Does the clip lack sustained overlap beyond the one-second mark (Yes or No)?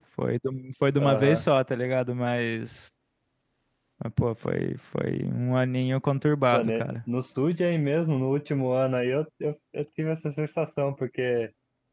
Yes